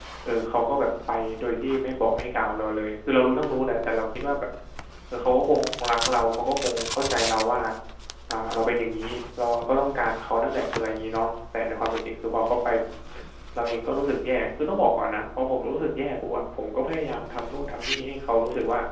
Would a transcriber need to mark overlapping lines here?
No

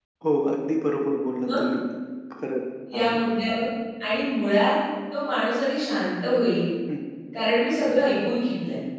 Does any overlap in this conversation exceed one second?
No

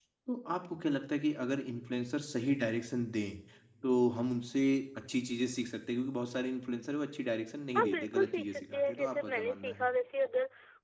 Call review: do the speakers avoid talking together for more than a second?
No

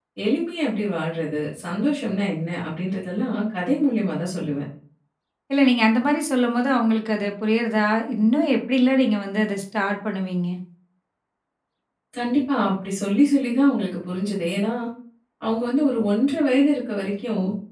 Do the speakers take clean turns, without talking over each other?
Yes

